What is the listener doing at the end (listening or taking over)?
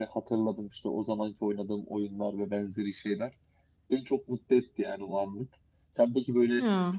listening